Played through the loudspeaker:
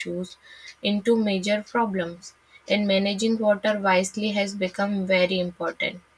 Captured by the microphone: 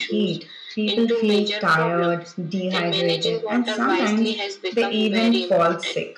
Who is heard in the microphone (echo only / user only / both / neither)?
both